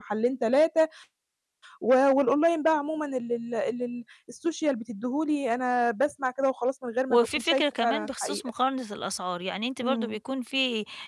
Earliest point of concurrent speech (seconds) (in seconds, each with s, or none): 7.1 s